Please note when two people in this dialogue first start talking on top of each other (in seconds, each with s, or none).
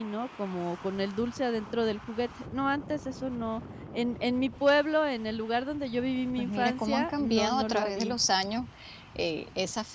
6.4 s